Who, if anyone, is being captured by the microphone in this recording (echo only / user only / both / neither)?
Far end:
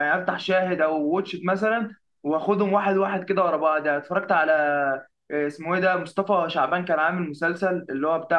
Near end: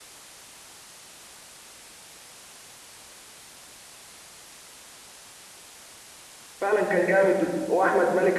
user only